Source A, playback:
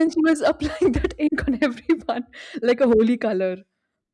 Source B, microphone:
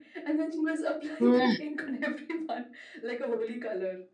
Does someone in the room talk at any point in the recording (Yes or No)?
Yes